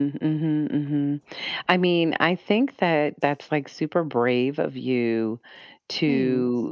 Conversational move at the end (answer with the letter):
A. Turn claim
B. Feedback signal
B